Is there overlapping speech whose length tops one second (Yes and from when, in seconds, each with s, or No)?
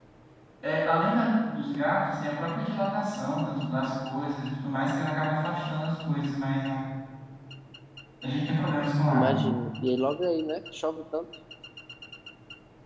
No